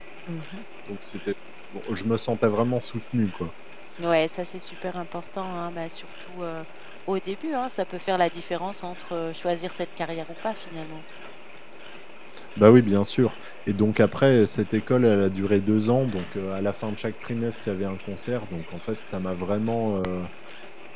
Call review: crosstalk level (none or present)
none